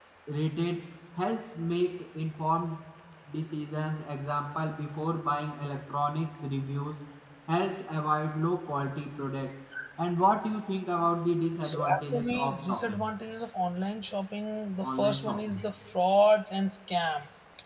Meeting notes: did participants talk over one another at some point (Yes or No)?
Yes